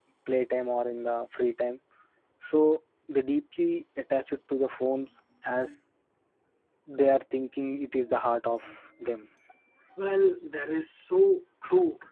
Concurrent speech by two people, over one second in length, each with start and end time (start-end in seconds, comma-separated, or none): none